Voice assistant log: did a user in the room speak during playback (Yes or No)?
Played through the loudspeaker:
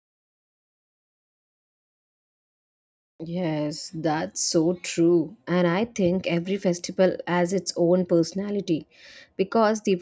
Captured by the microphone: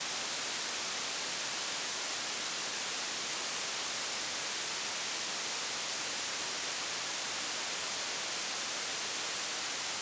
No